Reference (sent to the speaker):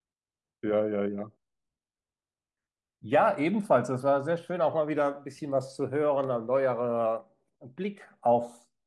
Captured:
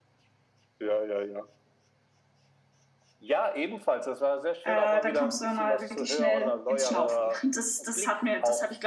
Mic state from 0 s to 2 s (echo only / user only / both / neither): echo only